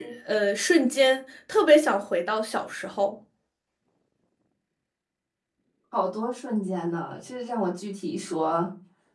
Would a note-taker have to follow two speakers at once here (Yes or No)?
No